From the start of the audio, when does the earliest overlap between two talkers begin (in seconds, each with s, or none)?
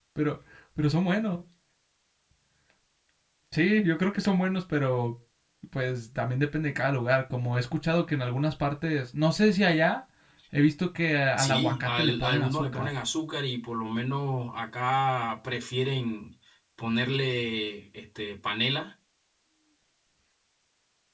11.4 s